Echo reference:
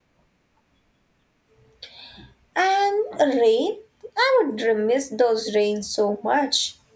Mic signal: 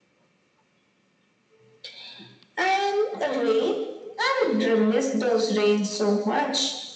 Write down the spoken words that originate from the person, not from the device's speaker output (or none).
none